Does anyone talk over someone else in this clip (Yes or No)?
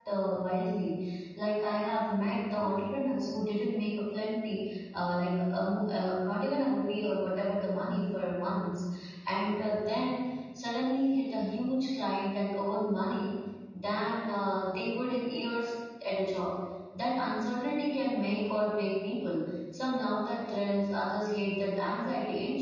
No